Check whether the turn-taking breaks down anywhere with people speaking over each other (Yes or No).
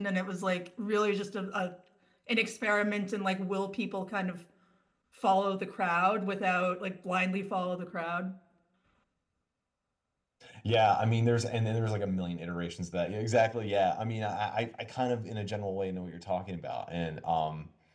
No